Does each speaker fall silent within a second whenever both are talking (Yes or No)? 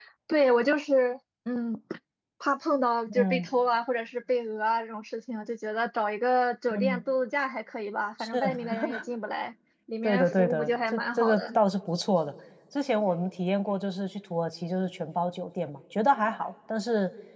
No